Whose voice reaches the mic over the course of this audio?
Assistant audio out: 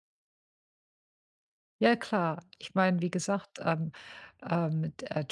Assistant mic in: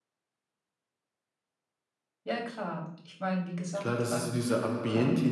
both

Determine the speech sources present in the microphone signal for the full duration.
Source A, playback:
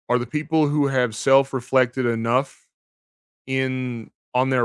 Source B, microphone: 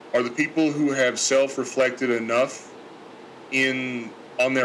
echo only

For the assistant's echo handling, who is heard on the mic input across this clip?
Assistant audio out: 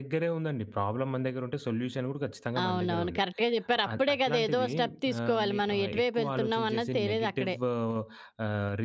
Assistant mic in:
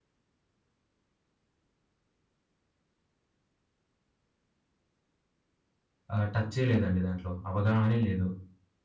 user only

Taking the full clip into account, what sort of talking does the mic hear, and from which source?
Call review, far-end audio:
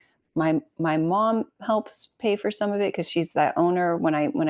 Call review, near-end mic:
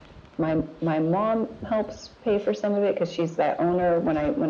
echo only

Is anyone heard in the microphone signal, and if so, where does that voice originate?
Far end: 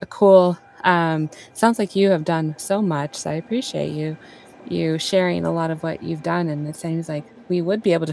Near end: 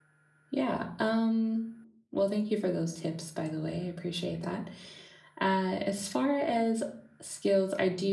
user only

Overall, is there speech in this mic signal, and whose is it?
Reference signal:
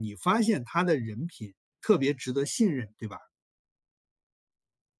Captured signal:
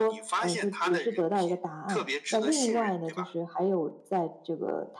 both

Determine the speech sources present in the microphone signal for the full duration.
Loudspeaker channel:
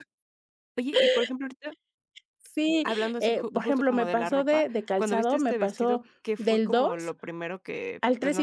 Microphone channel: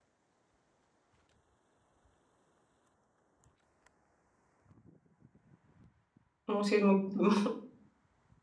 user only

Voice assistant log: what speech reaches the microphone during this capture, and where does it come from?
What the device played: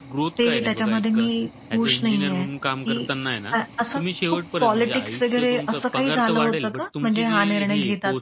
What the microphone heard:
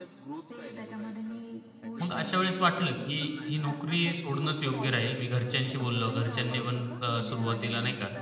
both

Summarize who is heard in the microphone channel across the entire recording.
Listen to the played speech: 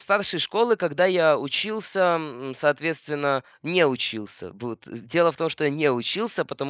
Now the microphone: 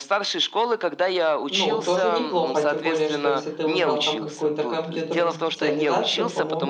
both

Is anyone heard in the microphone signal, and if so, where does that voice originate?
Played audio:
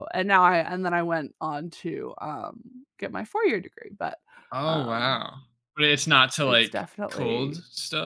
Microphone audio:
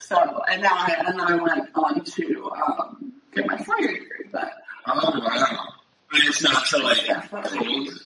echo only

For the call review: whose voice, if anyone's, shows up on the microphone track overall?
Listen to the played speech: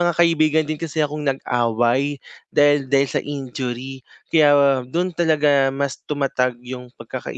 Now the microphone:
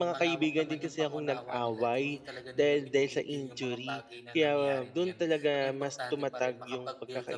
both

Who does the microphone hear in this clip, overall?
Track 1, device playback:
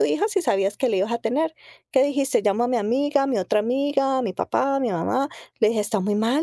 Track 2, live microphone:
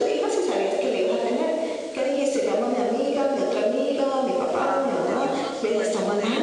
both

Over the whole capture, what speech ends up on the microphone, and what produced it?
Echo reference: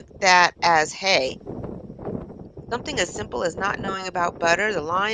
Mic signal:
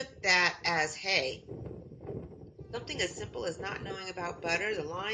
echo only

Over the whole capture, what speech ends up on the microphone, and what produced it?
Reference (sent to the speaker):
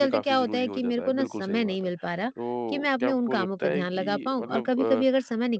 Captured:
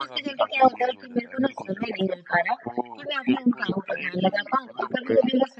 echo only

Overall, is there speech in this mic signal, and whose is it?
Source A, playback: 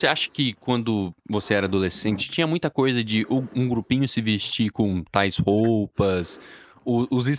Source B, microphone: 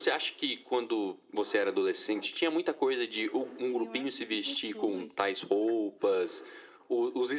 both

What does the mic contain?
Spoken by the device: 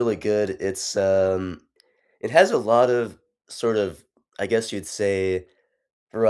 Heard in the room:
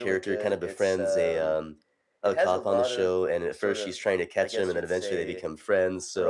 both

